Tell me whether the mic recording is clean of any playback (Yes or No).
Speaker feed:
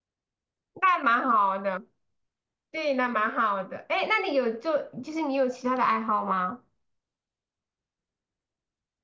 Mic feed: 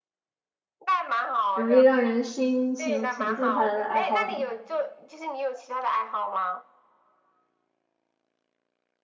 No